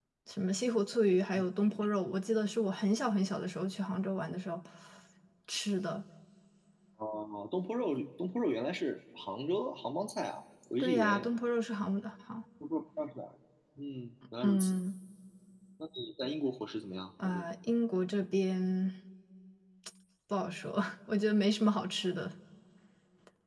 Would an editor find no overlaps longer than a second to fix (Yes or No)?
Yes